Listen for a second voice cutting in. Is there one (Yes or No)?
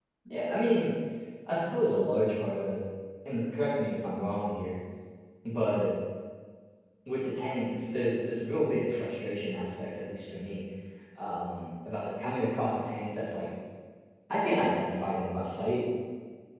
No